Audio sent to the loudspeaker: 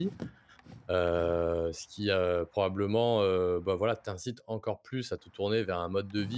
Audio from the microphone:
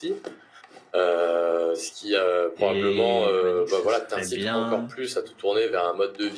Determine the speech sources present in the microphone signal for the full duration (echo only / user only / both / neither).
both